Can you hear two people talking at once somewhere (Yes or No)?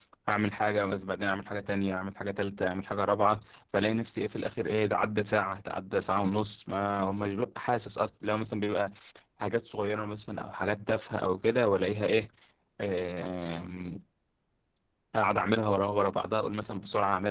No